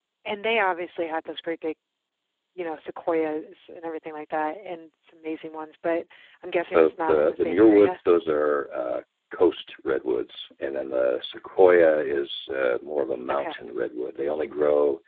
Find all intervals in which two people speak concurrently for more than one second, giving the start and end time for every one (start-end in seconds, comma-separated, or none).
6.7-8.0